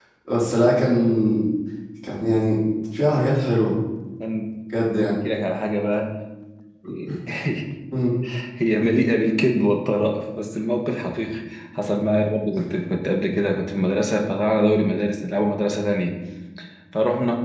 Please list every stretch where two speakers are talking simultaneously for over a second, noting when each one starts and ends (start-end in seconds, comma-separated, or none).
none